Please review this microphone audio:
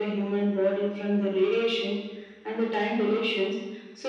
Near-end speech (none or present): none